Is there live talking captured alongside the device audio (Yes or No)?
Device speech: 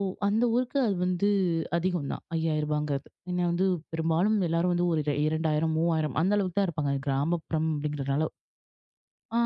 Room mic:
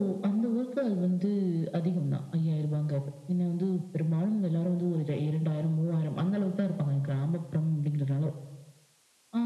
No